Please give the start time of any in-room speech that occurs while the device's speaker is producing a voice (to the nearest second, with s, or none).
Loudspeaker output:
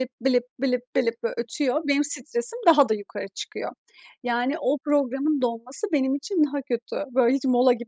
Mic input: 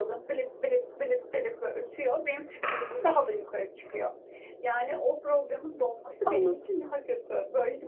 6 s